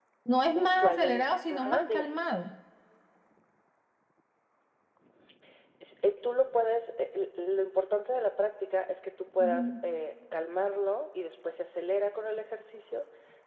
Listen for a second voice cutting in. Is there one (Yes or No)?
Yes